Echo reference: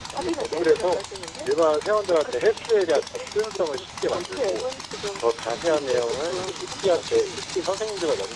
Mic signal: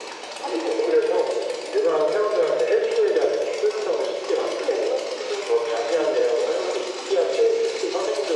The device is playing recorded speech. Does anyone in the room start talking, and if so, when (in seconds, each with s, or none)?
none